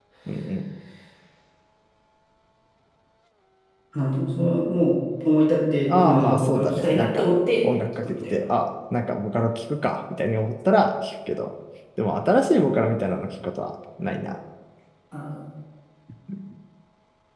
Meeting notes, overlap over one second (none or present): present